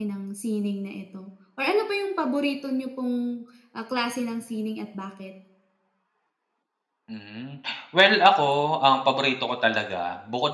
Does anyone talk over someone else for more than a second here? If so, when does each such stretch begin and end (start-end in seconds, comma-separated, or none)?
none